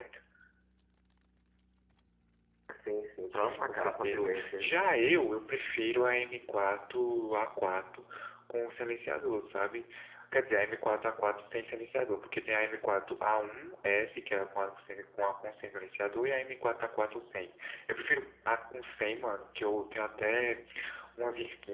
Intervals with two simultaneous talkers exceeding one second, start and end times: 3.3-4.7

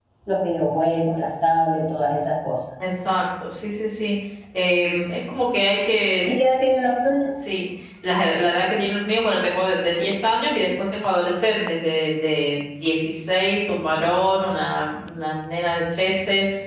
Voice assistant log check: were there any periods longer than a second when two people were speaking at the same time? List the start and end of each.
none

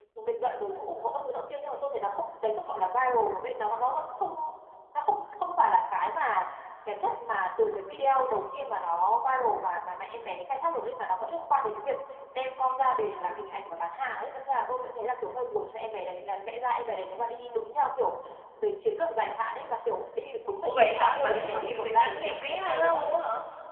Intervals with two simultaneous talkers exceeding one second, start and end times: 20.6-23.1

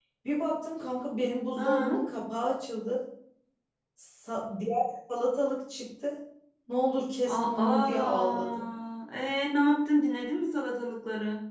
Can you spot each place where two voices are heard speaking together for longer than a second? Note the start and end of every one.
7.2-8.6

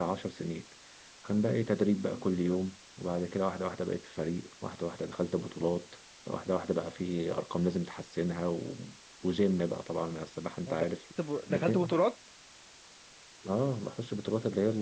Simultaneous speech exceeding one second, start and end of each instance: none

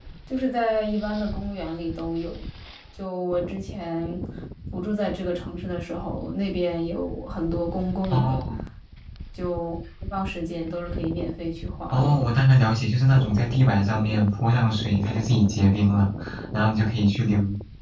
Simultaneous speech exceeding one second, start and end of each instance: none

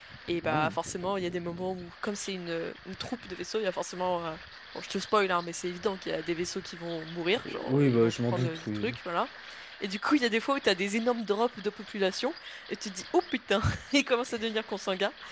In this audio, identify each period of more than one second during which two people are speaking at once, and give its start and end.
7.5-9.0

